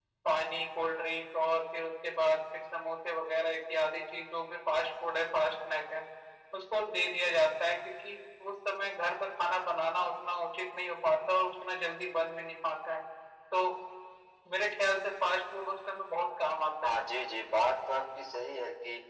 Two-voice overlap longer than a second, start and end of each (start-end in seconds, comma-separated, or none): none